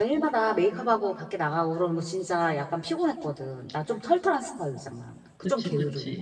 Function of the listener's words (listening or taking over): taking over